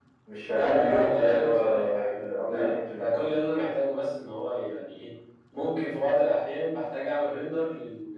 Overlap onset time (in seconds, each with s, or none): 0.5 s